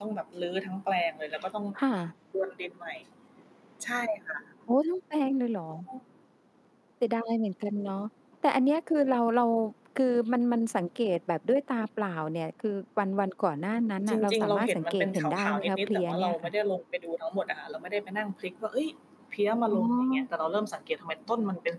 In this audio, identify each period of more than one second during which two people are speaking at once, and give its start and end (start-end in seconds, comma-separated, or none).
14.1-16.3